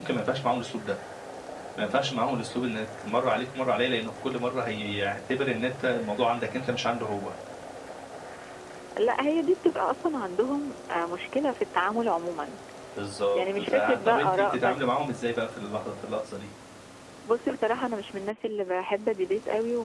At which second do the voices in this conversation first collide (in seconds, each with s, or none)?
13.3 s